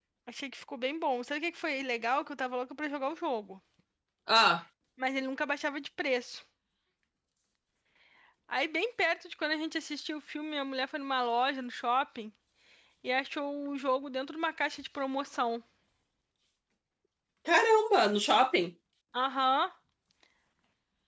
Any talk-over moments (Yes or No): No